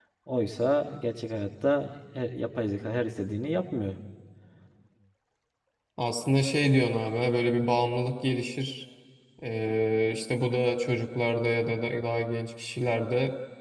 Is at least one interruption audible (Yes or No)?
No